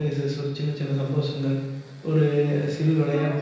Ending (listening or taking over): listening